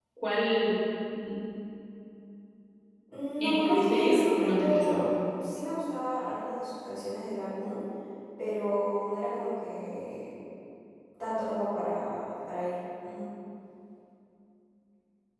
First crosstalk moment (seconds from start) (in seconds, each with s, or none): 3.4 s